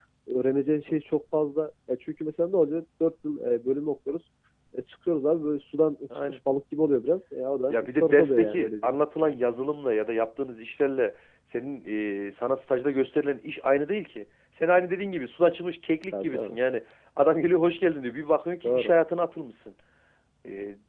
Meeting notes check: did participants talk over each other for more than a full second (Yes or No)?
Yes